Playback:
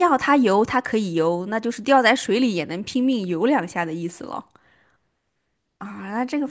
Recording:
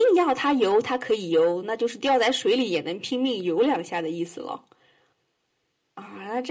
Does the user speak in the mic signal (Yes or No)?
No